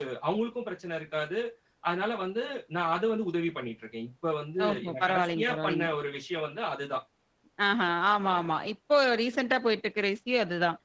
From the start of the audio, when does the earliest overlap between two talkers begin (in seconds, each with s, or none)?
4.6 s